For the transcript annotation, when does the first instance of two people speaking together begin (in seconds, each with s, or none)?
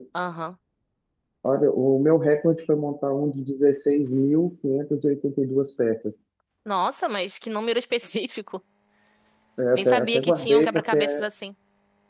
9.8 s